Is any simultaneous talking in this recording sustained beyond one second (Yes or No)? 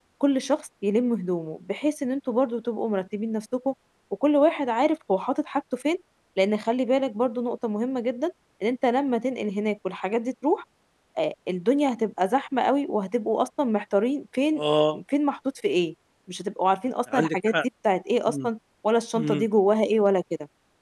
No